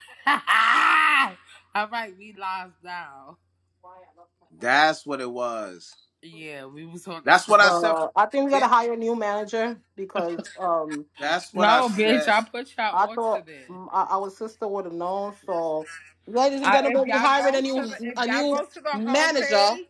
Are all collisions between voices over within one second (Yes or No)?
No